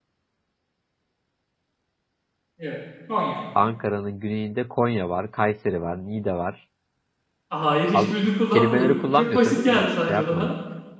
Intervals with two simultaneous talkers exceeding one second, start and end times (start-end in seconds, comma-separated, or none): 8.5-10.5